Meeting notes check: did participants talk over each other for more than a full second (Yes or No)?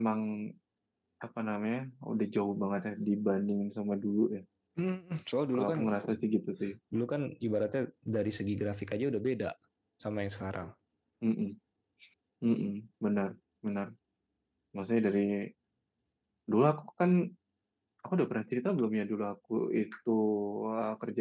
No